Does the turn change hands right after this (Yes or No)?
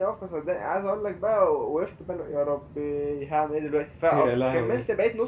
No